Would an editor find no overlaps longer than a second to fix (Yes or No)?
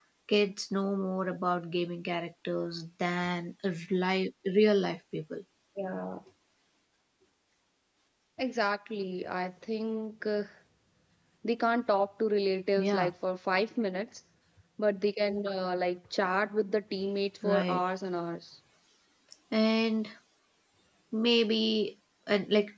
Yes